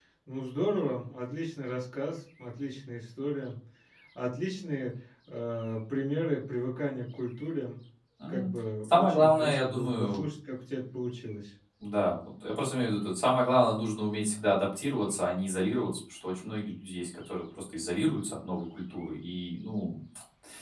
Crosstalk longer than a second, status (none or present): present